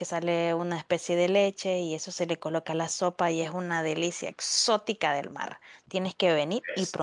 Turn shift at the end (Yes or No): No